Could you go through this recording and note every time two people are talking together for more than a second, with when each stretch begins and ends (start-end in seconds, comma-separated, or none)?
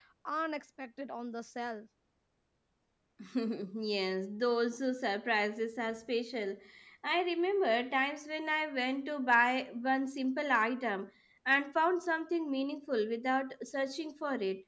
none